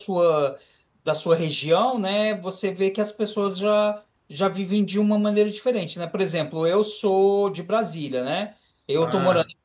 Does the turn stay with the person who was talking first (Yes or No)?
Yes